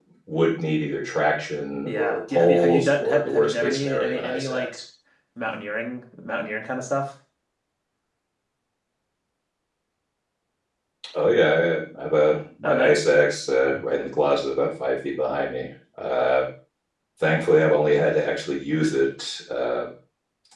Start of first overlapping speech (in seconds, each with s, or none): 1.8 s